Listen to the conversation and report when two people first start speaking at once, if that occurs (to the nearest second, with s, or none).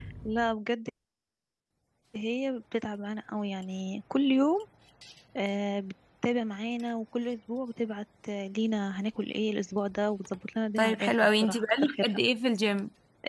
11 s